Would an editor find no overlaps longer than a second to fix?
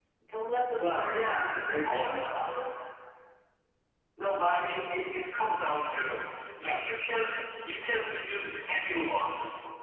No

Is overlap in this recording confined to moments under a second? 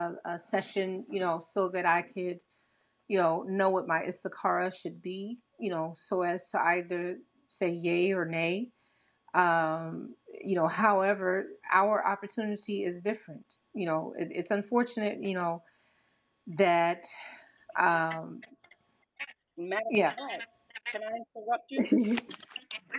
Yes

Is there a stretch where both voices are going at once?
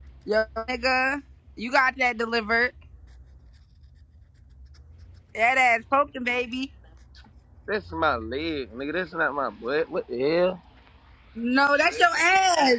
No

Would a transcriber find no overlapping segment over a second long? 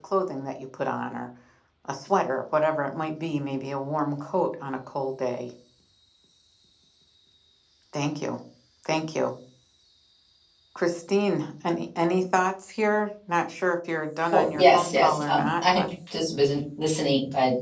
No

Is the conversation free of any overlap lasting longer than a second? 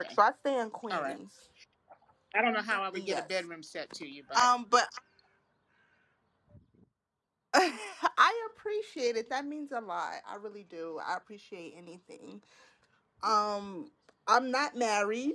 Yes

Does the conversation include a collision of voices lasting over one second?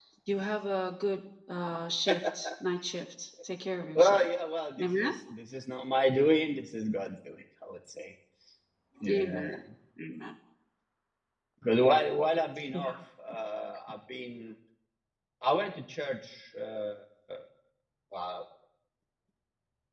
No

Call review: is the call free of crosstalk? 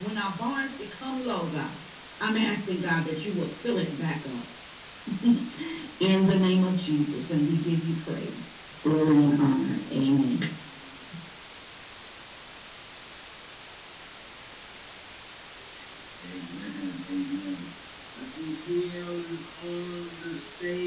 Yes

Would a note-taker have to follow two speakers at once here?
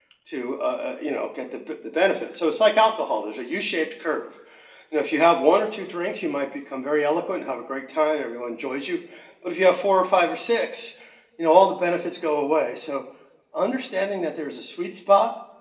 No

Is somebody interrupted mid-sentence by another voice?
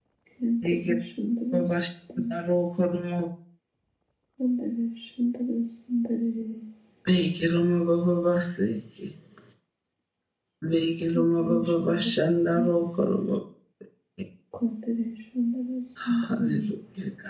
Yes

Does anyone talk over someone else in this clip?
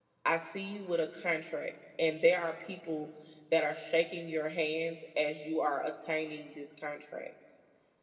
No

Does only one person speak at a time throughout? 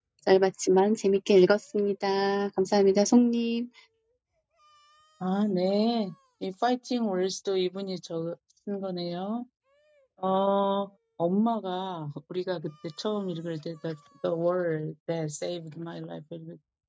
Yes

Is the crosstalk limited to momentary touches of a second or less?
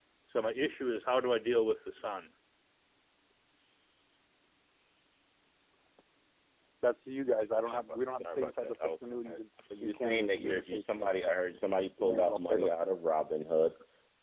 No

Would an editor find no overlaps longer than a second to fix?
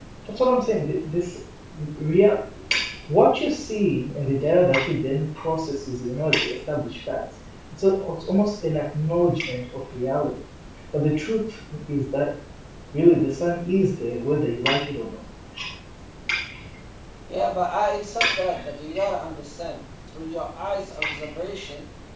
Yes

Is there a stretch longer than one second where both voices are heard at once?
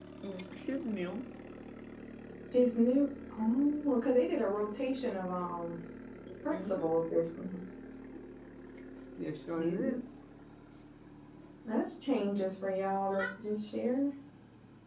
No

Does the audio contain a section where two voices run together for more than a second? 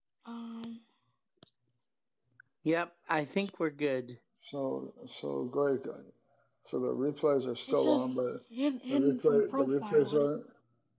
Yes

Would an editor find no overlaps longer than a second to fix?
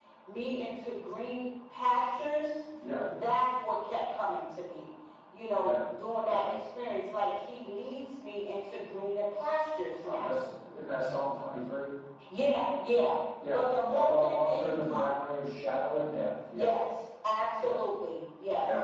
No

